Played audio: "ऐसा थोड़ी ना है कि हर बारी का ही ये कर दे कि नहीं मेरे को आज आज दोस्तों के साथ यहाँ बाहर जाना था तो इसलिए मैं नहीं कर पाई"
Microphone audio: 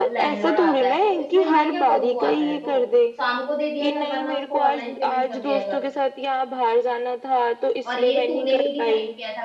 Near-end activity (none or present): present